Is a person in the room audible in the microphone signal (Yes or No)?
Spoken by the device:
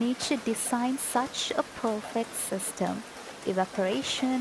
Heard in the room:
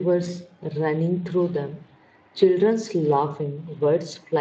Yes